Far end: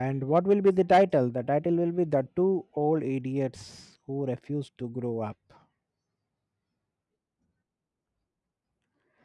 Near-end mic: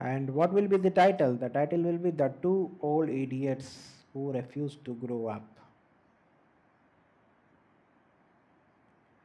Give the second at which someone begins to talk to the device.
none

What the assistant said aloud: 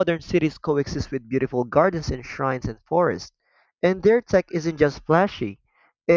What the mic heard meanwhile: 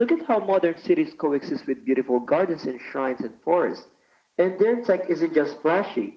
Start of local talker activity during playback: none

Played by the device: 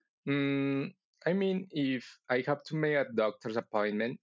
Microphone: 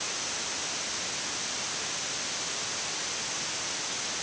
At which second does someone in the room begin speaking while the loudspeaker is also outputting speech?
none

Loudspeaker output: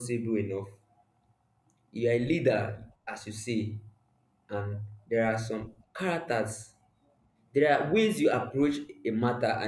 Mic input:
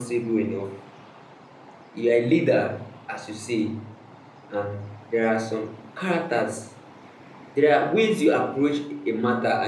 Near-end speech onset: none

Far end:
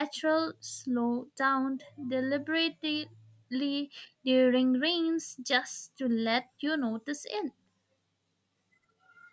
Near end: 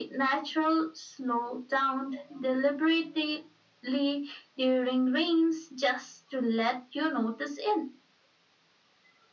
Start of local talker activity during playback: none

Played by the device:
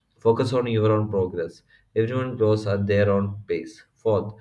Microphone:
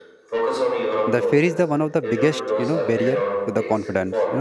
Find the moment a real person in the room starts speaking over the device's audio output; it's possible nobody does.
1.1 s

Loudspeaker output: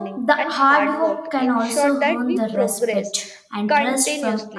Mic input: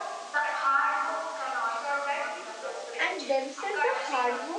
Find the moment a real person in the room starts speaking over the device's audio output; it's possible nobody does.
3.0 s

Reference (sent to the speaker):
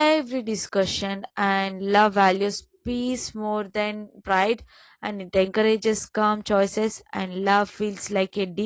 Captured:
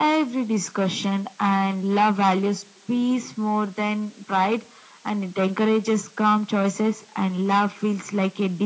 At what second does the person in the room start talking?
none

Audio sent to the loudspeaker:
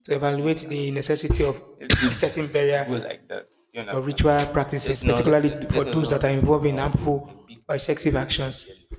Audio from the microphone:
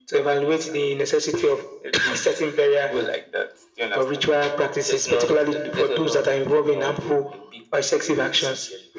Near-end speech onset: none

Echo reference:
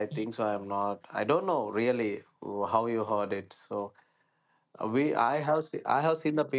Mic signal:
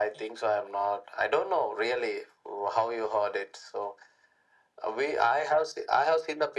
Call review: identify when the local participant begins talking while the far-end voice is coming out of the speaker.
none

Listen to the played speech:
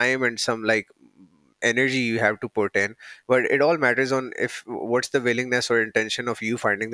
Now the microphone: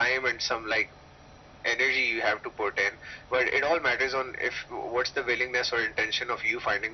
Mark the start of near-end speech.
none

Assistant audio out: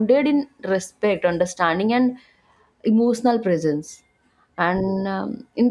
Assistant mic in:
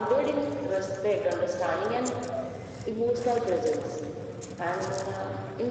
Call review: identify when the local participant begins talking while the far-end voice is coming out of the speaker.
none

